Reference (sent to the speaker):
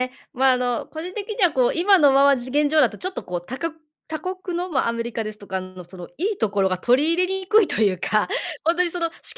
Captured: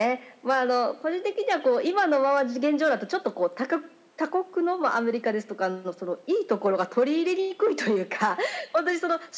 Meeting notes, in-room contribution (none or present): none